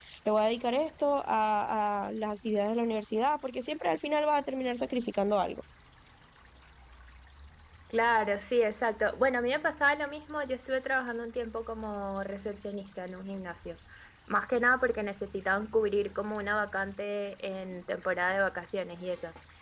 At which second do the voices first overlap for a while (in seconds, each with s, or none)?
none